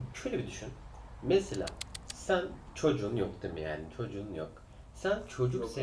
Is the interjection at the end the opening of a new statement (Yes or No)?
No